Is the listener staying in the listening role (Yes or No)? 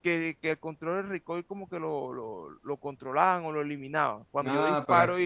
No